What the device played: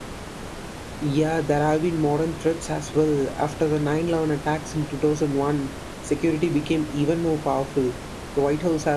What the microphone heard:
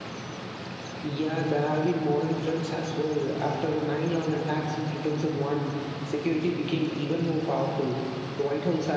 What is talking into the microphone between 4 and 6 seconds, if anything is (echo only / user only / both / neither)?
echo only